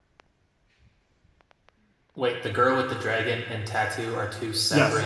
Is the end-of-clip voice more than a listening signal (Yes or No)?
Yes